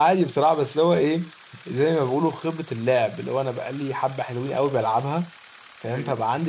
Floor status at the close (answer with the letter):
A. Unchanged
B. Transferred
A